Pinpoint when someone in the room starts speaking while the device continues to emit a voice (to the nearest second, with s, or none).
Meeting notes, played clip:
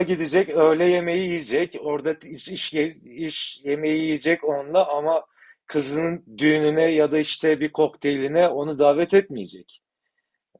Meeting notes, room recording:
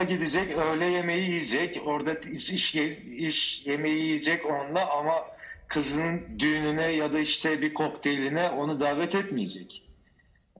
none